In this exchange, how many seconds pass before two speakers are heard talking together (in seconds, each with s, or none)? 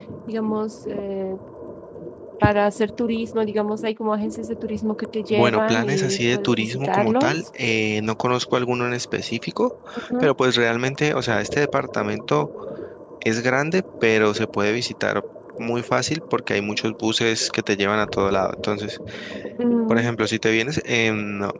5.3 s